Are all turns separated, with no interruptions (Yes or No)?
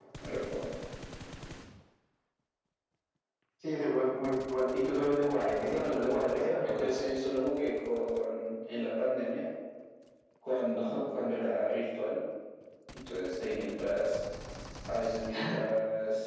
No